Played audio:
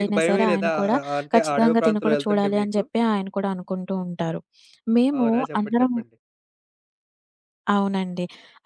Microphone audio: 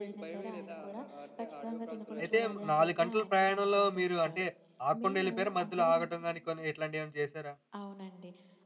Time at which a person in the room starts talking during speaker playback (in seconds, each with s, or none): 2.2 s